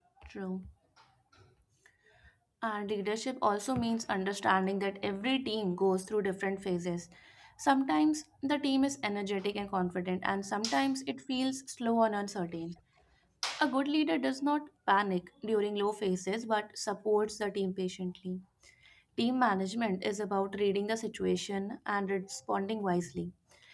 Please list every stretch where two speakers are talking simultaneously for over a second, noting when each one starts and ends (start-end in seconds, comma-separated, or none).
none